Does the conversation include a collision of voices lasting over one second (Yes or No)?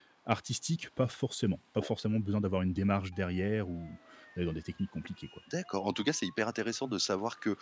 No